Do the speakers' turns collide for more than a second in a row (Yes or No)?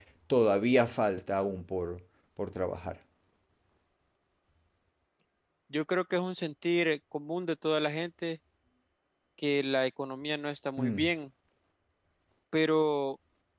No